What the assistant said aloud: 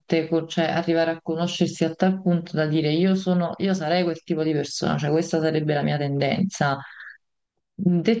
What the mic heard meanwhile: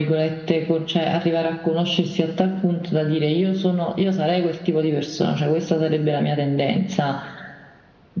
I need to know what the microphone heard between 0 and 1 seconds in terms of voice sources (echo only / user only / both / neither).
echo only